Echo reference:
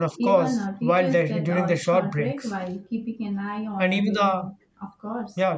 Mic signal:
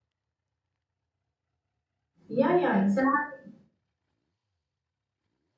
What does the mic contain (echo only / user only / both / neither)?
user only